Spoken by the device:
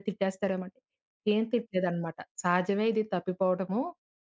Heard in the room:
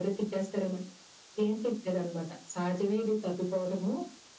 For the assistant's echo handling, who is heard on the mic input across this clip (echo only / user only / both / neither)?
echo only